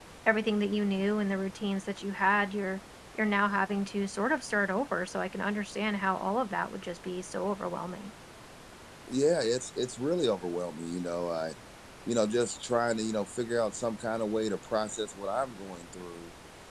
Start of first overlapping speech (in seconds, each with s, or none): none